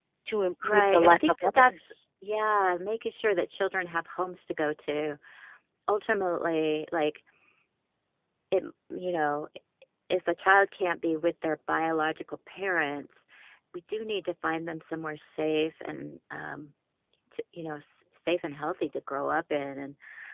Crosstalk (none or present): present